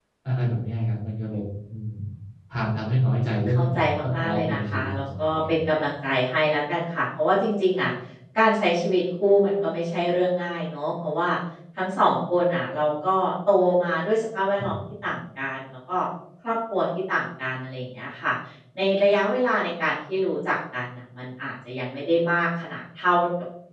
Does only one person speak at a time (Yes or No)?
No